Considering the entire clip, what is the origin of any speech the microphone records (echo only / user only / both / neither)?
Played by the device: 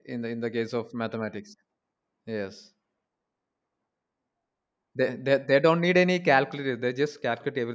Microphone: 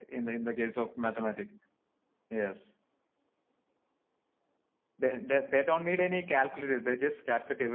echo only